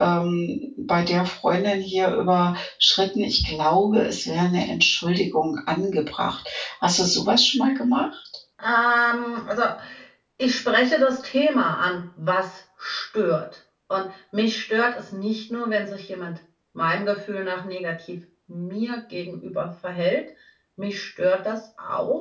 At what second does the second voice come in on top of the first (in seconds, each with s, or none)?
none